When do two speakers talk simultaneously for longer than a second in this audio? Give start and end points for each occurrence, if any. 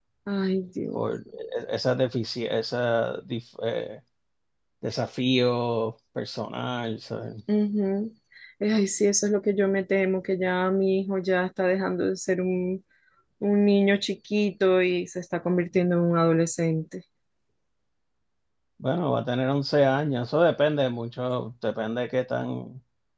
none

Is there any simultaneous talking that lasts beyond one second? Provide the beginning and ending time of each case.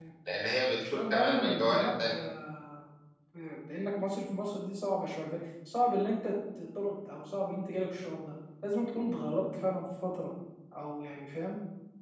0.8-2.3

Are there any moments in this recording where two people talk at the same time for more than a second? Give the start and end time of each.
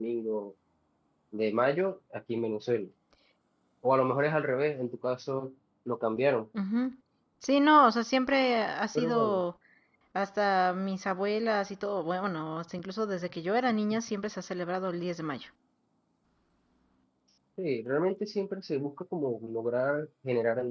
none

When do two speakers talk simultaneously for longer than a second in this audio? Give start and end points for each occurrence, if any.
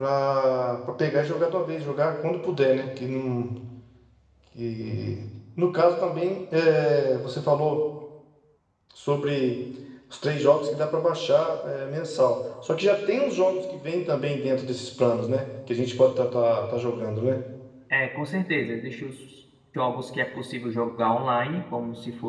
none

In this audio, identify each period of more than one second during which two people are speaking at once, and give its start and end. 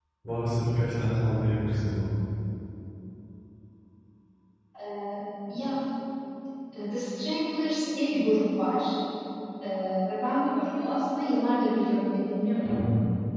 none

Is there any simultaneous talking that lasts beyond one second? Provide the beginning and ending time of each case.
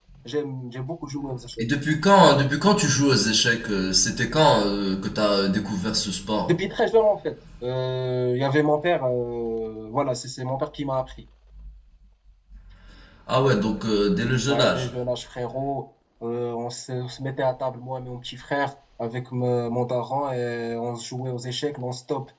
none

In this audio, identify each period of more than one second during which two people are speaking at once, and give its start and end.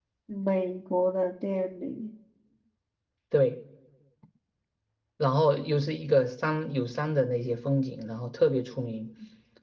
none

